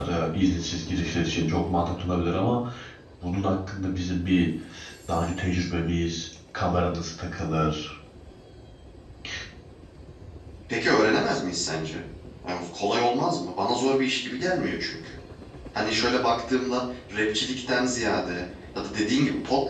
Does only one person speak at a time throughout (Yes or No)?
Yes